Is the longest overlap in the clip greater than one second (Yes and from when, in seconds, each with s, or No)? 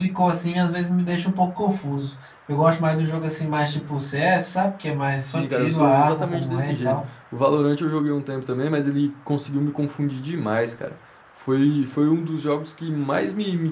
Yes, from 5.3 s